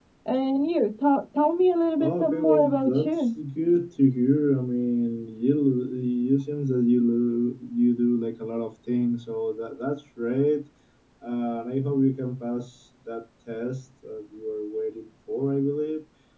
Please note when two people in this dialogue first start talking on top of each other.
2 s

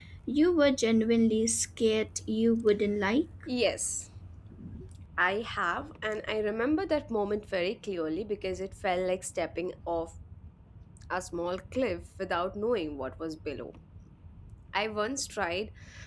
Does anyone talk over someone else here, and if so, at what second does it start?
none

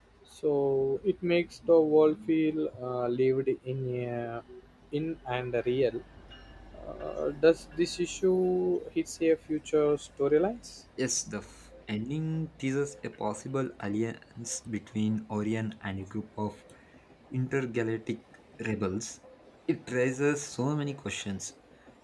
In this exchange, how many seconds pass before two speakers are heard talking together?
none

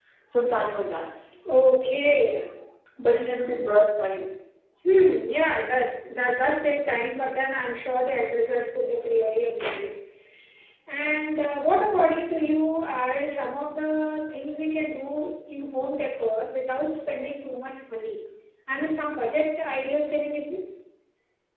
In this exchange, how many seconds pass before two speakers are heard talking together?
none

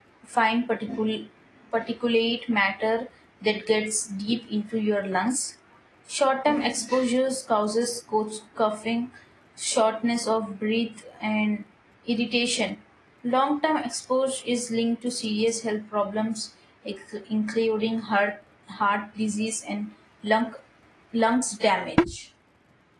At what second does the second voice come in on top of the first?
none

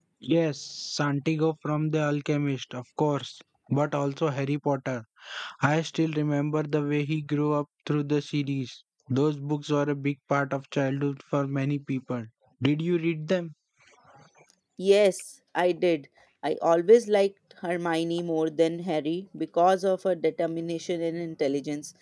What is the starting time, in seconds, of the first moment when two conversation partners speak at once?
none

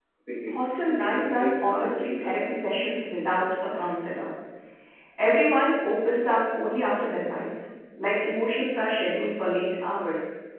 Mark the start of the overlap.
1 s

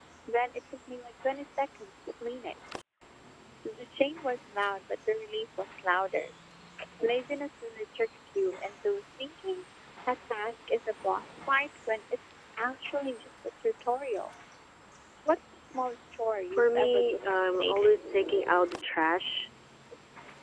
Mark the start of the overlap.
17 s

